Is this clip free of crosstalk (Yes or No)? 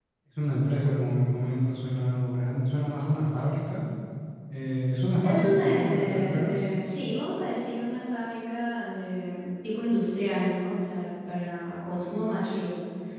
No